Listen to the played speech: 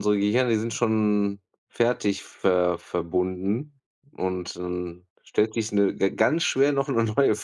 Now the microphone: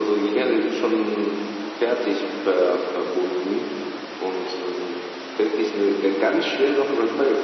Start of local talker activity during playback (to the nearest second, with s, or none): none